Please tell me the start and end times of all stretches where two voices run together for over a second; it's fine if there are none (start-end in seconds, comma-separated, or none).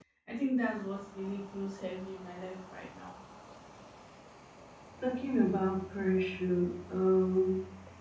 none